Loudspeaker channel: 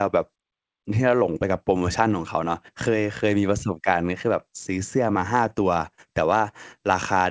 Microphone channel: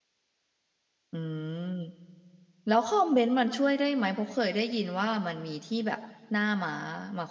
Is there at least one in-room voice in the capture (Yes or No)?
Yes